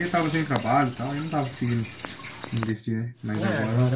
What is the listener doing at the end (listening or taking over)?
taking over